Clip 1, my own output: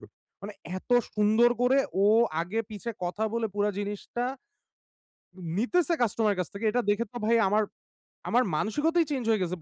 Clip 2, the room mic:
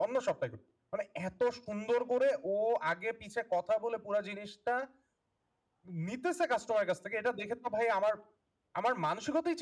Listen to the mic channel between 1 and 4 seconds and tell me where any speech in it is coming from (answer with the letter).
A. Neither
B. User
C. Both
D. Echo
D